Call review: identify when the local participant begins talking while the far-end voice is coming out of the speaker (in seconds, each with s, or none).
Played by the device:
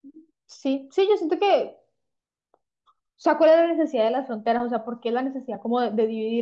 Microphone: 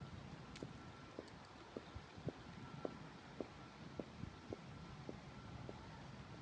none